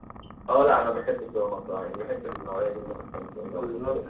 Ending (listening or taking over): taking over